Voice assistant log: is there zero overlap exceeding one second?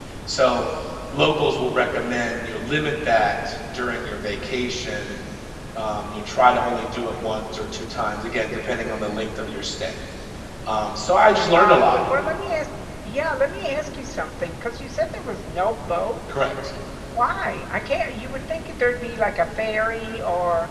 Yes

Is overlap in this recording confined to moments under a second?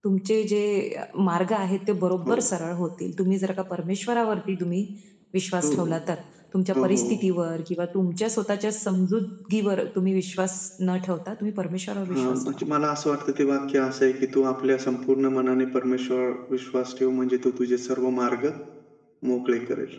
Yes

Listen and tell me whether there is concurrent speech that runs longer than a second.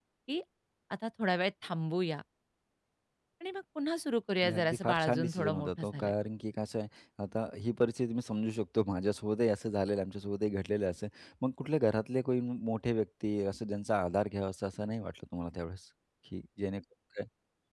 Yes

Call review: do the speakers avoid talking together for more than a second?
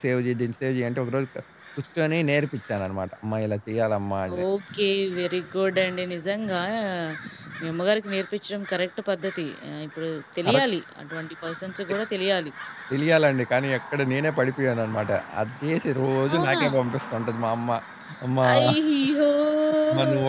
Yes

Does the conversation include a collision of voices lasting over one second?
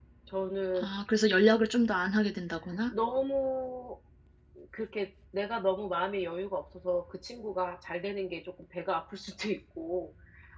No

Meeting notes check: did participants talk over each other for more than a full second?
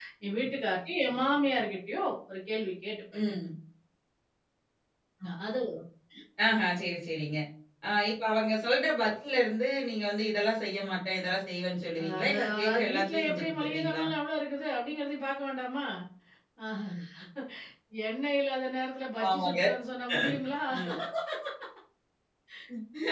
Yes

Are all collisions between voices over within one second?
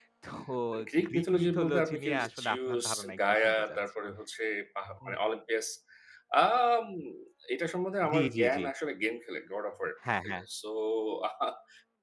No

